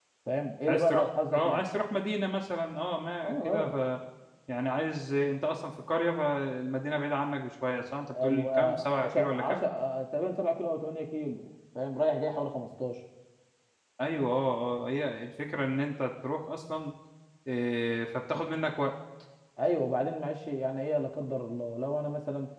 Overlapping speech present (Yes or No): Yes